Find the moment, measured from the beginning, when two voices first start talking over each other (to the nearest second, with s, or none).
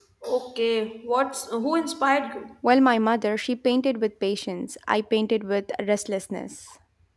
none